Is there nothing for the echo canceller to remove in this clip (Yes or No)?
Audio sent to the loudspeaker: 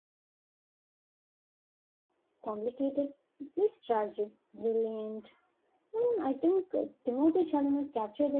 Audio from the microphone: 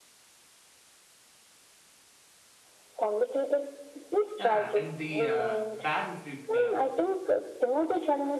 No